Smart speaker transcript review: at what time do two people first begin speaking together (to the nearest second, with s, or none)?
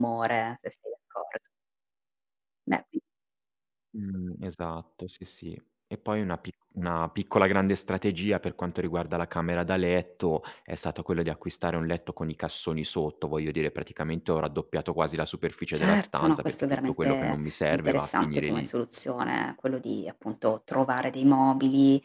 16 s